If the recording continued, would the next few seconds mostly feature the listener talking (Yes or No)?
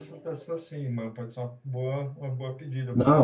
Yes